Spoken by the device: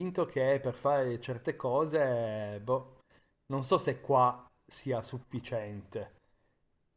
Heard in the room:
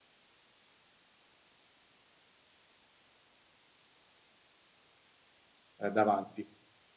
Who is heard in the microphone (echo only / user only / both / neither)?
user only